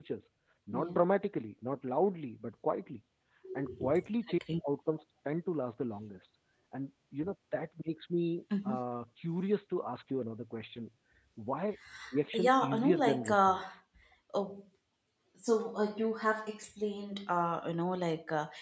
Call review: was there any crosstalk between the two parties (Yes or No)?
Yes